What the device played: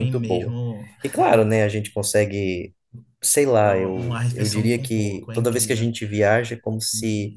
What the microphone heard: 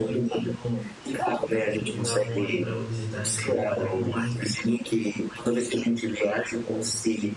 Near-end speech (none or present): present